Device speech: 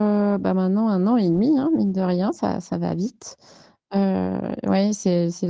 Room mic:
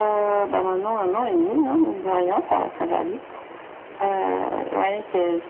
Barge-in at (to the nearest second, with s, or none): none